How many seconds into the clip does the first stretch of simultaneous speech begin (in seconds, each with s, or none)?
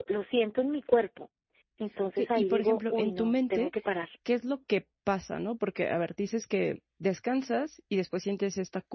2.2 s